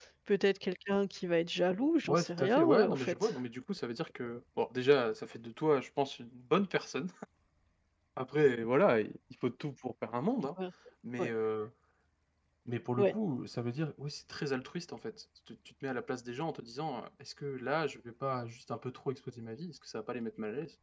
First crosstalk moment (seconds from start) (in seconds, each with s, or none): 2.1 s